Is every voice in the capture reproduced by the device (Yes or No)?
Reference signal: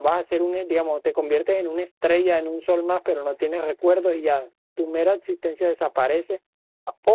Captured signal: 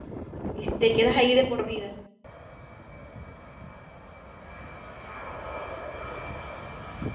No